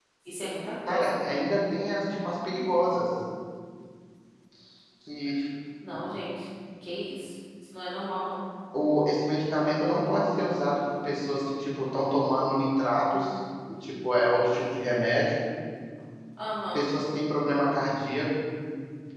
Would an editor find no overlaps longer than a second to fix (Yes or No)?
Yes